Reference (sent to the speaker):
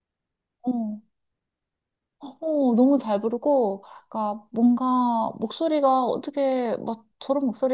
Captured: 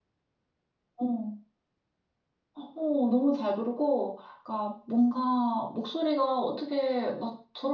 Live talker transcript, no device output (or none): none